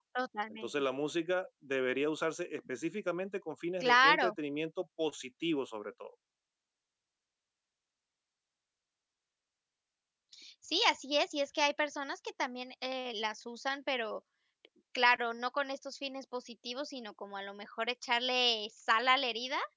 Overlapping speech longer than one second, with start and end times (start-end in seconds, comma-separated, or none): none